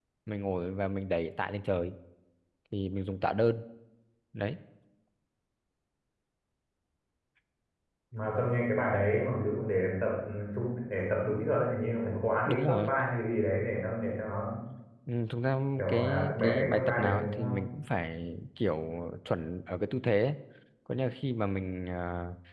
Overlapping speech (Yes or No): Yes